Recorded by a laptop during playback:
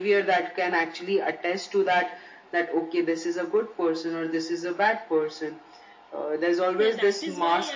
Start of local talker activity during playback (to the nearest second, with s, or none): 7 s